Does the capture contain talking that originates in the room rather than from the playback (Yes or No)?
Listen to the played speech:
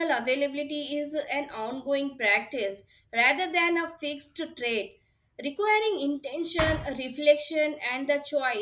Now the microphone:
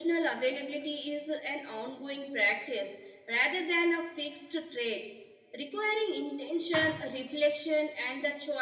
No